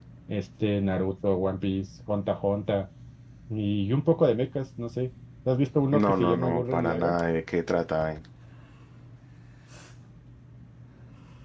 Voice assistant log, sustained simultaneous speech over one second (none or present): present